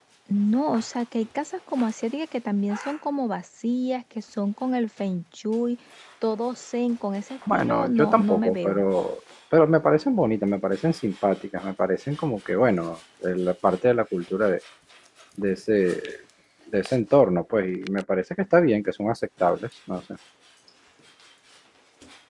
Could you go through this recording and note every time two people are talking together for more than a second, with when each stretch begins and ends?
7.5-8.8

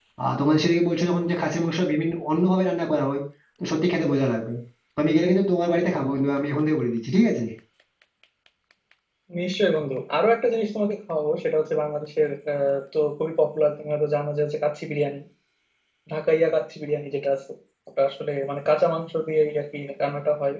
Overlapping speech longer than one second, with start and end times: none

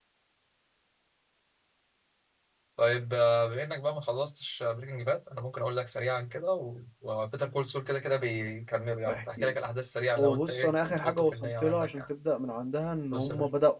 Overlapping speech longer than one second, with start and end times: 10.1-12.0

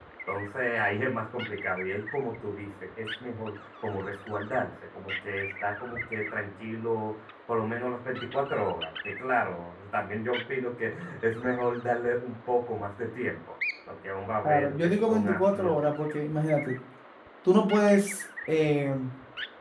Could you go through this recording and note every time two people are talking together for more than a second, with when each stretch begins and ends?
14.4-15.8

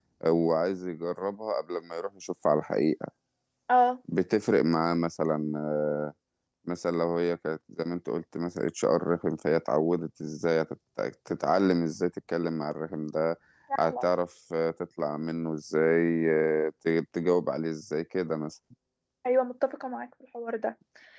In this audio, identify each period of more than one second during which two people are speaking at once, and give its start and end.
none

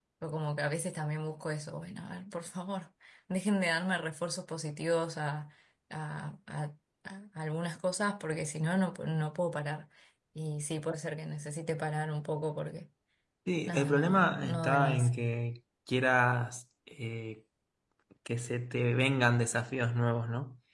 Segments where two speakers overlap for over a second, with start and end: 13.7-15.1

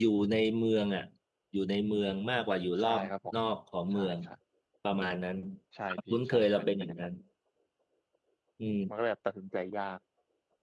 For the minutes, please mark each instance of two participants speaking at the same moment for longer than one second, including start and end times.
5.9-7.1

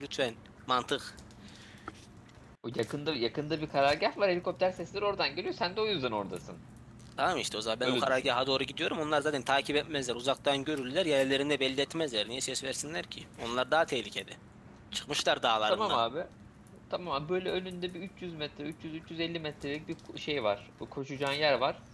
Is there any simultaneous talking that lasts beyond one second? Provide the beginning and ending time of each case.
none

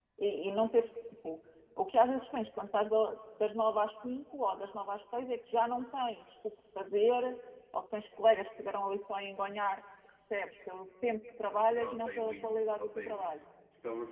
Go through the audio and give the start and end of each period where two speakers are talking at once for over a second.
11.6-13.4

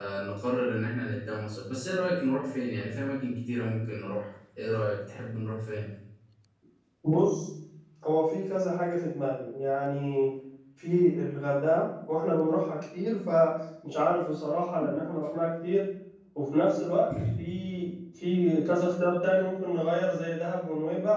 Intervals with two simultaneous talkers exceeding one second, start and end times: none

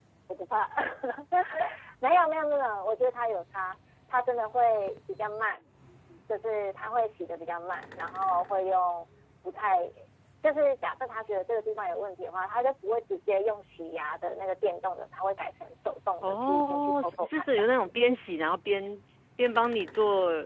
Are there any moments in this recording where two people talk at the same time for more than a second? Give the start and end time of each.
16.2-17.9

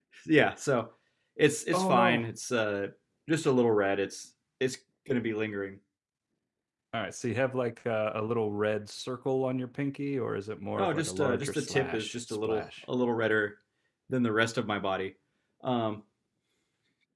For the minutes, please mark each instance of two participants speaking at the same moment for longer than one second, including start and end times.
10.8-12.8

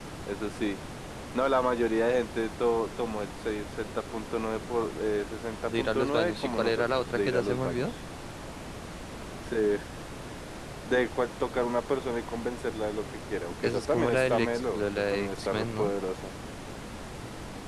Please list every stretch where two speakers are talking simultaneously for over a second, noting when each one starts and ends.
5.7-7.8, 13.6-15.9

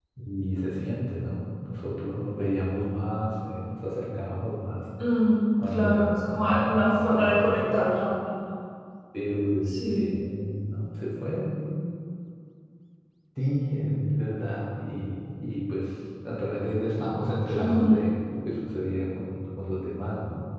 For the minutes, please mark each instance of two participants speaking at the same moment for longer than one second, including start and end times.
5.7-7.8

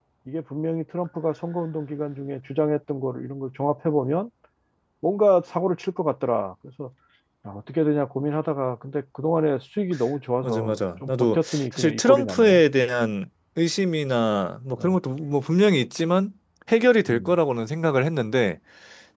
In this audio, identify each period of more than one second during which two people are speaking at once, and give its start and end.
10.4-12.6

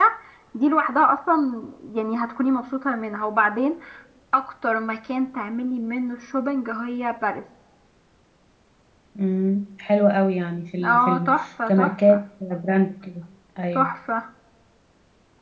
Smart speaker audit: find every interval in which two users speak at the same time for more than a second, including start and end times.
10.8-12.2

